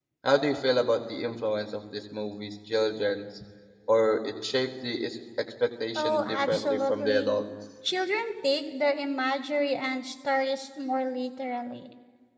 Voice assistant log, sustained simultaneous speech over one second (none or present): present